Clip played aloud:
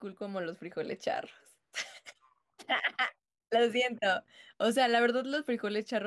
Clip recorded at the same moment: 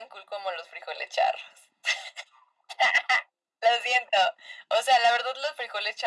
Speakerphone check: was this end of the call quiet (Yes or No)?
Yes